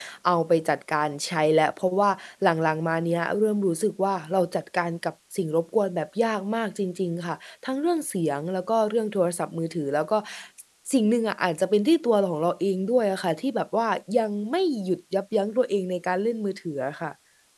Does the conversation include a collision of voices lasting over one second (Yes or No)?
No